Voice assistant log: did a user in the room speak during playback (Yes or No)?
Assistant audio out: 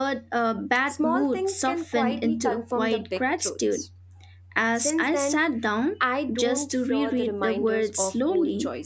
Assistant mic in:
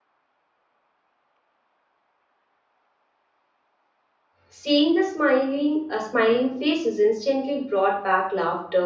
Yes